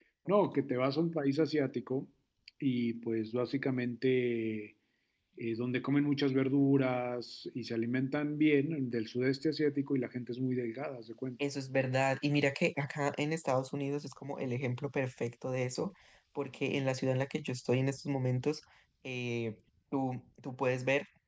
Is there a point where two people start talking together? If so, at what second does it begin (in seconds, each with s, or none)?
none